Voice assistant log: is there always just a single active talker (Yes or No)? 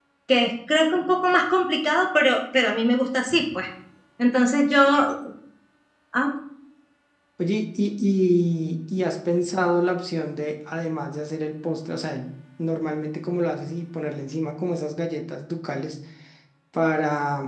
Yes